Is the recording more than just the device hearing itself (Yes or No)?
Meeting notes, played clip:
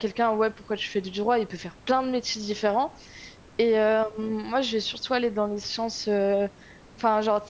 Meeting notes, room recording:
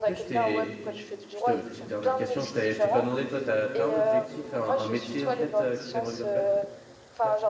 Yes